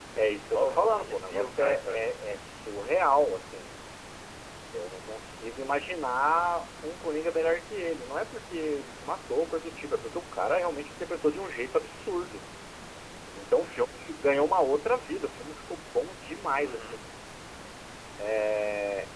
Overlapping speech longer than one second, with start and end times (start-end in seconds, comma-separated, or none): 0.5-2.1